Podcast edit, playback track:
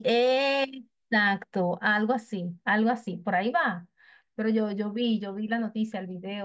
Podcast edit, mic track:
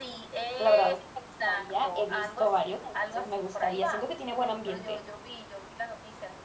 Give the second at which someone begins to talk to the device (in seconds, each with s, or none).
0.6 s